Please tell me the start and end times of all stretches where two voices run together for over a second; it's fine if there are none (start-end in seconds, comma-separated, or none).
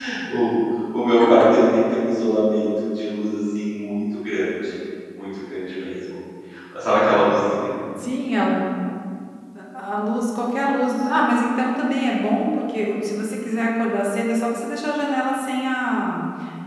none